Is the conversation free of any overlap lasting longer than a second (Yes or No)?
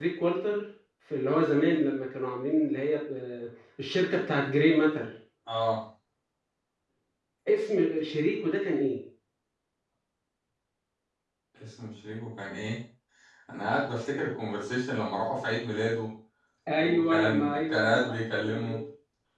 No